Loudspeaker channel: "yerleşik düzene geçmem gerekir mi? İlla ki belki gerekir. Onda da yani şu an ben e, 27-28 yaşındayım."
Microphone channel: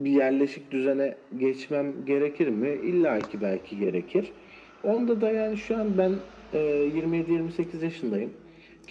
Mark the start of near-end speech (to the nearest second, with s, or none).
none